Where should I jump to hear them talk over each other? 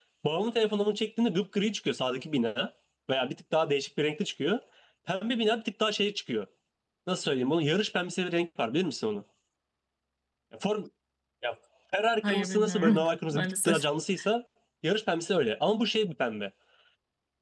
12.2 s

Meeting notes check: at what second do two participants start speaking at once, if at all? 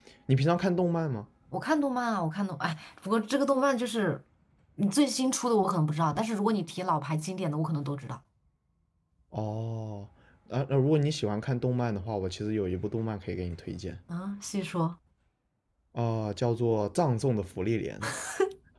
none

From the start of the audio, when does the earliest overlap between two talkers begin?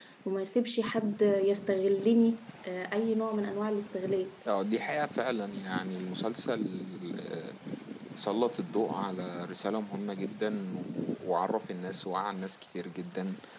none

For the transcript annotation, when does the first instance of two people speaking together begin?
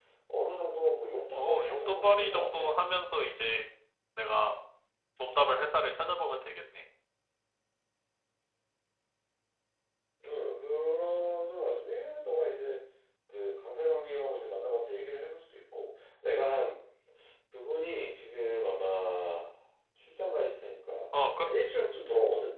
1.3 s

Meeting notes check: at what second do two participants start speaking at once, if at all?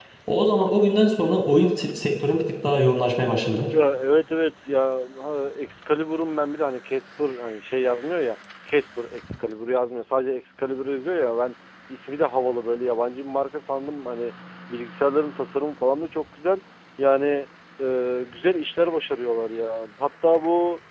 none

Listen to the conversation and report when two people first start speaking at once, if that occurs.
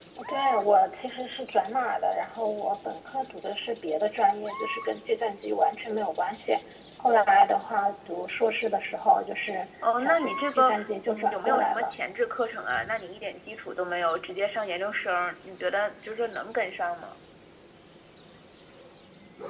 9.8 s

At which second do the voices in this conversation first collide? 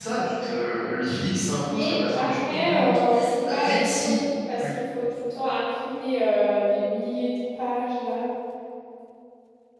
1.6 s

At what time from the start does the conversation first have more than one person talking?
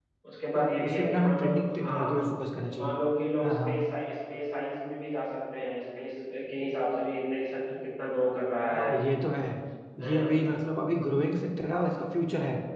0.6 s

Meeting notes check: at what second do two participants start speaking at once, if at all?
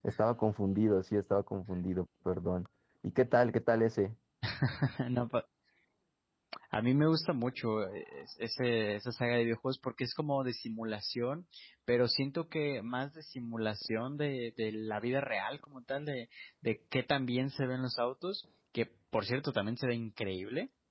none

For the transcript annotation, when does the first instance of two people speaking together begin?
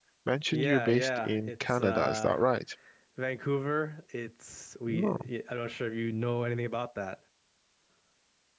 0.5 s

